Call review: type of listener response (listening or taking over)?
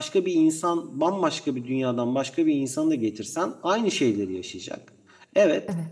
listening